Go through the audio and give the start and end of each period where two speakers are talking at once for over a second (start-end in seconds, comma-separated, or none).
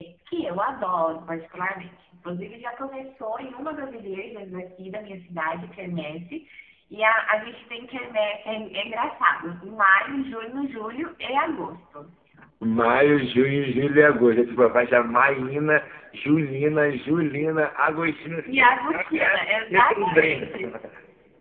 18.4-20.5